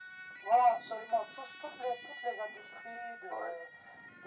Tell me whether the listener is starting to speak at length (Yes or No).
No